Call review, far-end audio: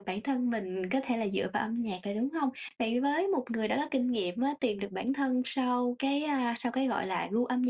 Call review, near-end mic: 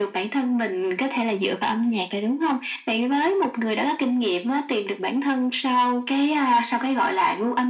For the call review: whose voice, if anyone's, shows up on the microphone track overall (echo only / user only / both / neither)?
echo only